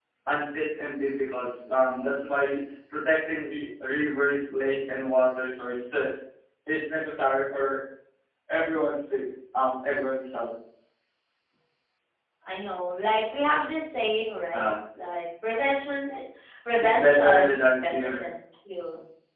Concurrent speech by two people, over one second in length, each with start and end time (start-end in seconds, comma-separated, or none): 16.8-18.2